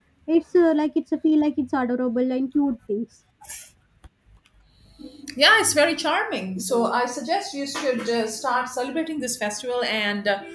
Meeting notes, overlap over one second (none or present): none